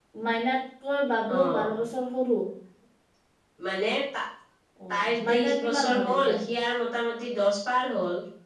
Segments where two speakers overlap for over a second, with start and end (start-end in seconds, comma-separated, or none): 4.9-6.4